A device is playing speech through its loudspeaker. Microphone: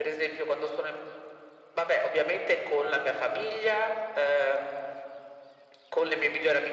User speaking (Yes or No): No